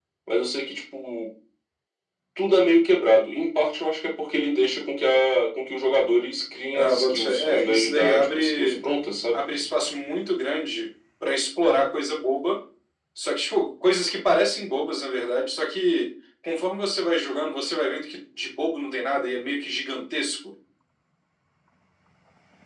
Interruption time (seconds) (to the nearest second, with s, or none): 7 s